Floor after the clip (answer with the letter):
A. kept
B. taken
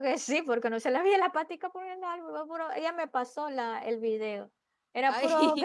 A